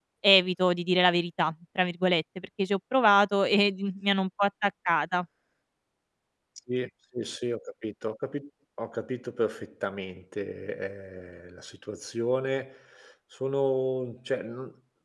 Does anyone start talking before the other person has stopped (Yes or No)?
No